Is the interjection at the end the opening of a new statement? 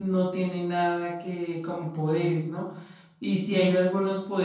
No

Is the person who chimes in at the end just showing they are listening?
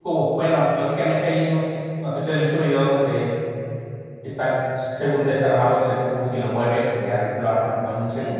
No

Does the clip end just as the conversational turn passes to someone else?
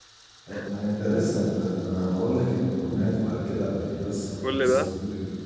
No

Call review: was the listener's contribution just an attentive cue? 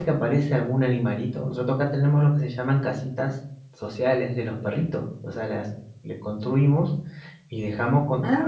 Yes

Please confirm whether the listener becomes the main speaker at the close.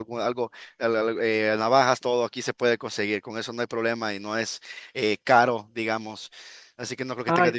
No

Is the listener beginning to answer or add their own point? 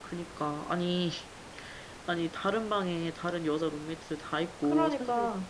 No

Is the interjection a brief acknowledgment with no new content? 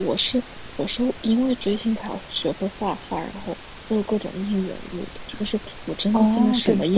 No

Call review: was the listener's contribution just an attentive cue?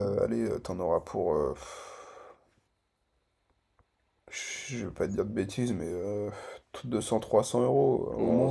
No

